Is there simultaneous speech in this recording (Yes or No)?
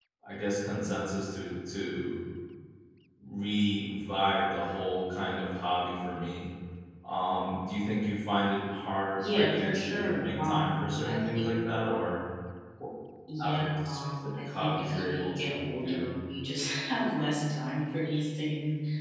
Yes